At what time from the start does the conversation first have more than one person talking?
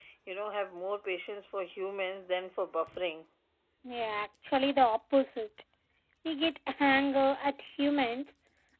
none

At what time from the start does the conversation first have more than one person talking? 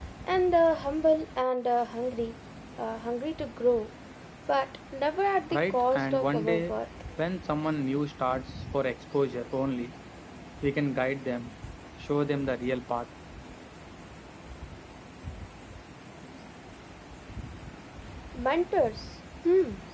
6 s

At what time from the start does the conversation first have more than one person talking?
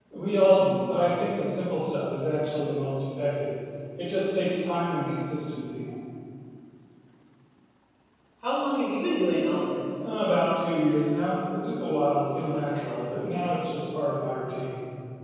none

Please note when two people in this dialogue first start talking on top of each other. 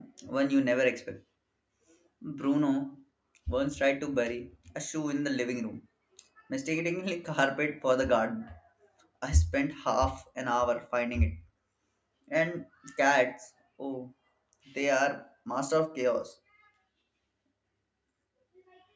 none

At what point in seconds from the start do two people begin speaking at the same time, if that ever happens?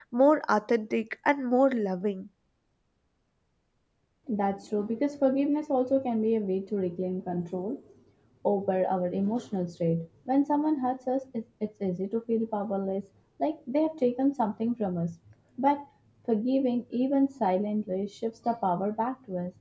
none

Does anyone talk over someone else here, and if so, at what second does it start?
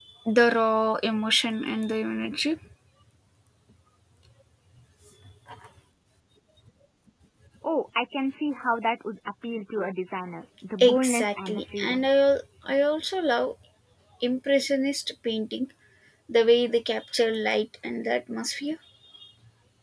11 s

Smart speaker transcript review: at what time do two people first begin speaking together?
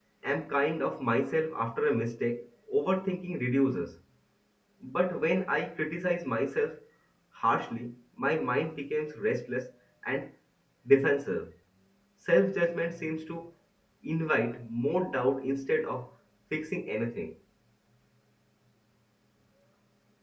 none

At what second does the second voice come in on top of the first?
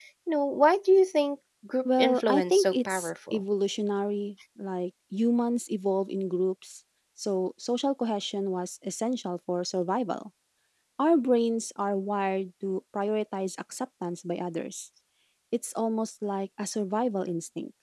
2 s

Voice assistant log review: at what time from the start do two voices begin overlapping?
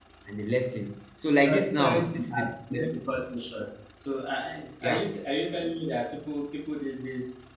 1 s

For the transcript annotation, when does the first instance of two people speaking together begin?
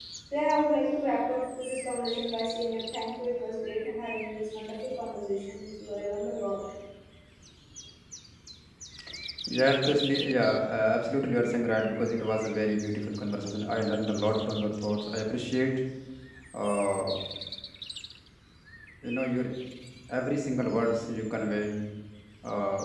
none

